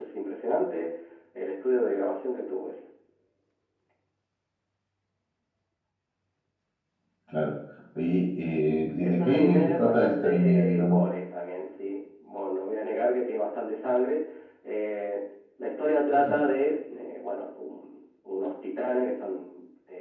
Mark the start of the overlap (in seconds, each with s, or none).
8.9 s